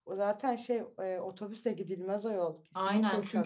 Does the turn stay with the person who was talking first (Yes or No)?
No